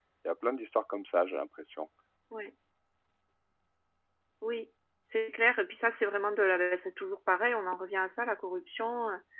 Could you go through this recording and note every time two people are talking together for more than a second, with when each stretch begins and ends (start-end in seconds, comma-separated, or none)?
none